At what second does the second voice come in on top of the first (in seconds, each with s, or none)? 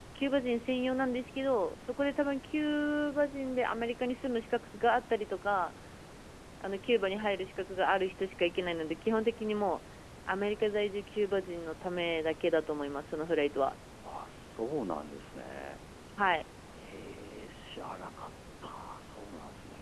none